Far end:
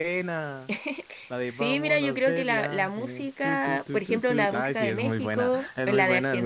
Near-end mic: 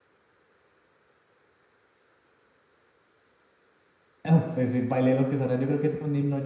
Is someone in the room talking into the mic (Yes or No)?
Yes